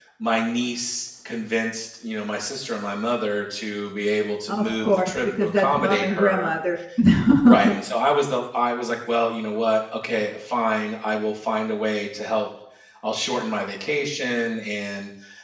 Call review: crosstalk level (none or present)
present